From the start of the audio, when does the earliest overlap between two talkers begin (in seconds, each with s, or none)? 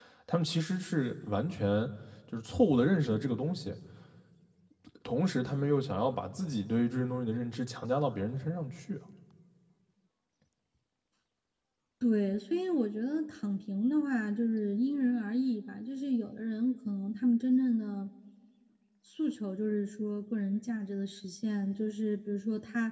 none